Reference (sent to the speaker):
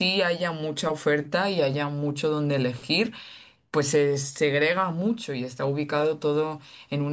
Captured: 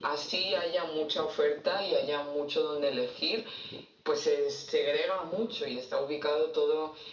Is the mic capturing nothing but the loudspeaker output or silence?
Yes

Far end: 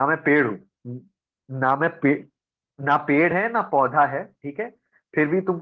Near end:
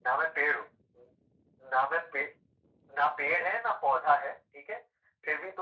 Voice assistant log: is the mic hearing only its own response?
Yes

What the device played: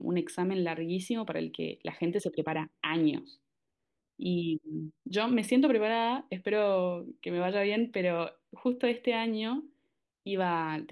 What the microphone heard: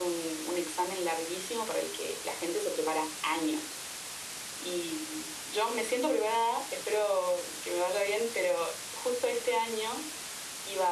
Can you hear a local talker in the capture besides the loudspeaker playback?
No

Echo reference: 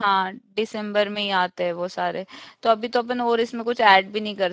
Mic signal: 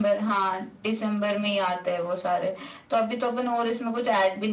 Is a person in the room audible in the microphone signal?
No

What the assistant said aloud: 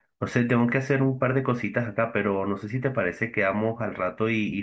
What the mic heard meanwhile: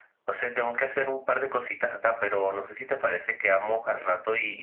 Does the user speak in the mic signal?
No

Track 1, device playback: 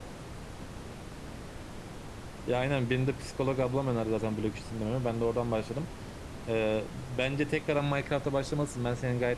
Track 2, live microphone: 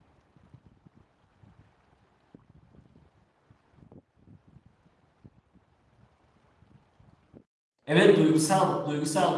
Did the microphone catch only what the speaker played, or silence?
No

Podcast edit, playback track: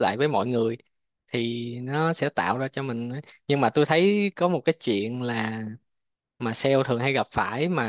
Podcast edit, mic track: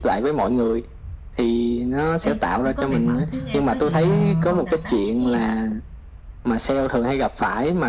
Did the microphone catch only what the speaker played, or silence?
No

